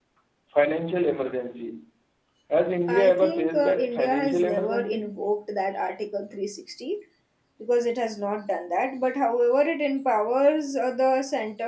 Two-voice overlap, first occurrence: 3 s

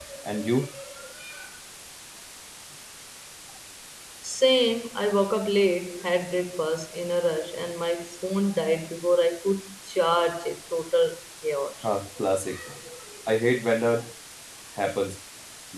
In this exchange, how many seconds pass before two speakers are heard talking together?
none

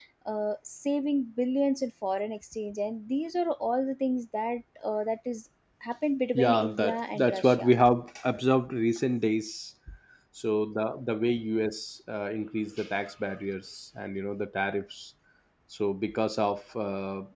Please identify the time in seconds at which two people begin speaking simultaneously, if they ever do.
6 s

